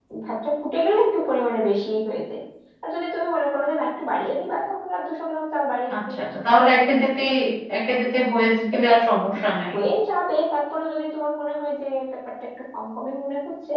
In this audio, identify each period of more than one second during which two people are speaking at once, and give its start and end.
none

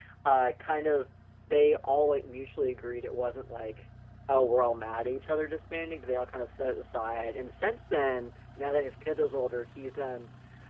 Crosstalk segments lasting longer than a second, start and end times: none

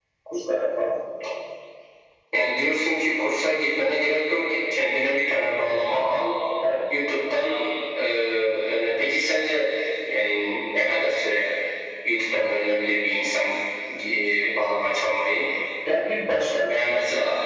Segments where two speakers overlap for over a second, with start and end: none

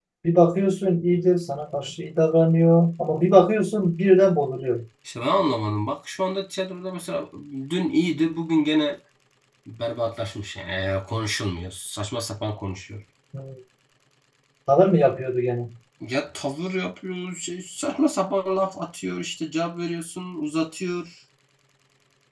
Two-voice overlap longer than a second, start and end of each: none

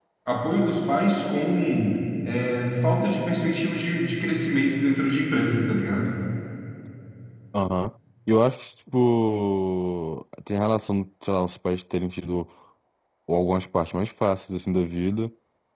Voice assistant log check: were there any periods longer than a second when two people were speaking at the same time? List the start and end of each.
none

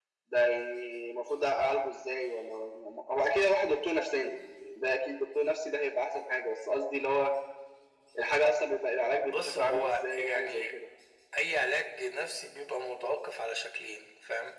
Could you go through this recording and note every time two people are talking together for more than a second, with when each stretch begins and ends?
9.3-10.6

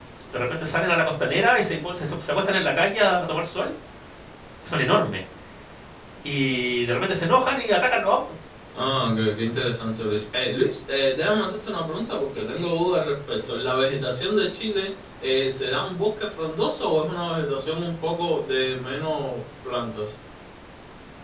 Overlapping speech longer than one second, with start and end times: none

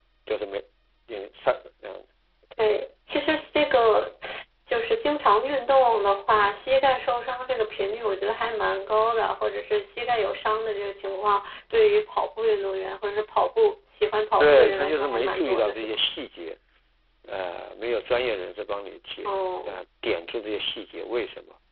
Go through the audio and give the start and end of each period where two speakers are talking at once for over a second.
14.4-15.9

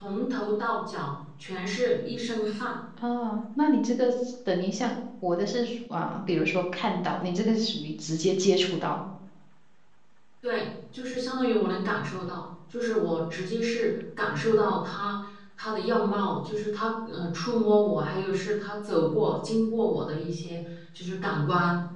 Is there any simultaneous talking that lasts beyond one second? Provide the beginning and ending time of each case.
none

